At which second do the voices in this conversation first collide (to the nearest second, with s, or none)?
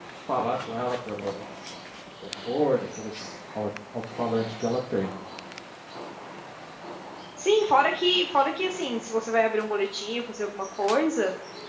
none